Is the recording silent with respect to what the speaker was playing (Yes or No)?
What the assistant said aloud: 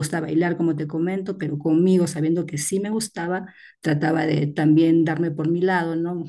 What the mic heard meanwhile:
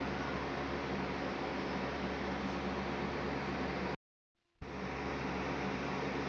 Yes